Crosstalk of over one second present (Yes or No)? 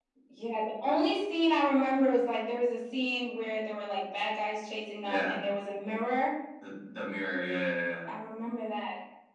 No